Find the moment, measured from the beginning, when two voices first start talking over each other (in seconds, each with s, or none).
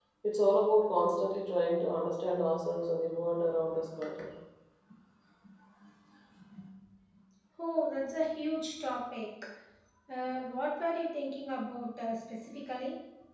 none